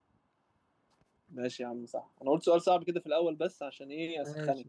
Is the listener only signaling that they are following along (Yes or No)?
No